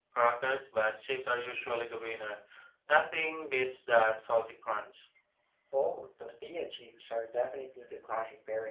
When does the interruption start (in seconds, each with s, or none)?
none